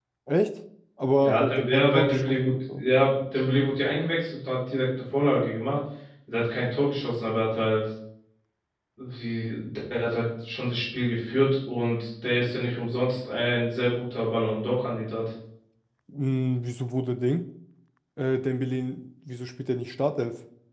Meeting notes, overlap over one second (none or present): present